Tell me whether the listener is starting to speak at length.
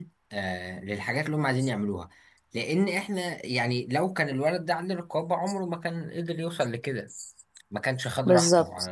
Yes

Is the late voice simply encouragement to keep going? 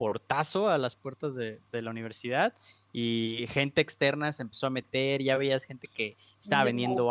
Yes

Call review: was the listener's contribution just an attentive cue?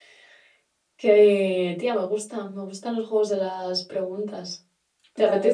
No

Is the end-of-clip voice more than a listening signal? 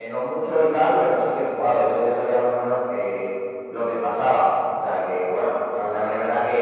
No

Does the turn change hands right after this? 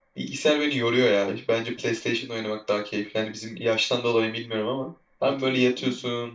No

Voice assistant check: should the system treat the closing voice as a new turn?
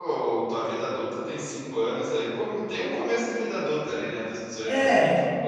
Yes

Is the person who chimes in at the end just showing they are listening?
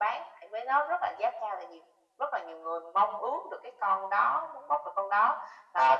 No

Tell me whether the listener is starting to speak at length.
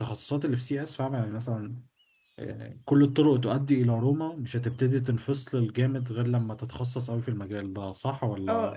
Yes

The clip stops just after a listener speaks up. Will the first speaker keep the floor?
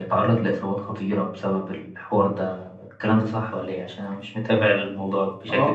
No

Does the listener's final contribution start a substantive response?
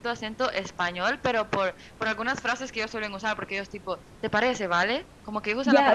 Yes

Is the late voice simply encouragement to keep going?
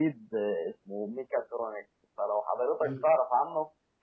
Yes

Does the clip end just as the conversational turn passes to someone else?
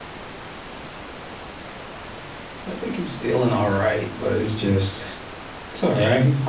No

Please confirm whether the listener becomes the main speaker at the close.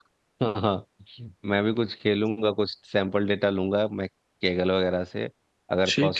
No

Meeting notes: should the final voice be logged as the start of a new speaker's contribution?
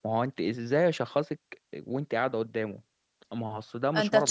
Yes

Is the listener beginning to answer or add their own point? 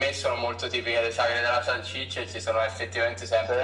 No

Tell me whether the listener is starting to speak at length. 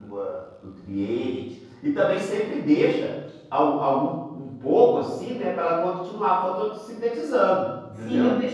Yes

